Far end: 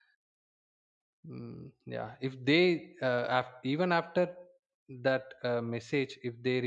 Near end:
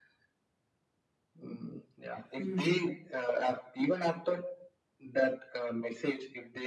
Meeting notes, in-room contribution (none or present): present